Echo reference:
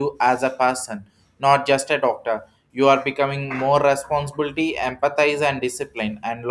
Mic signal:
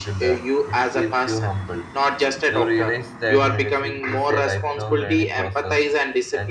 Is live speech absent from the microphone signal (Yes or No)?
No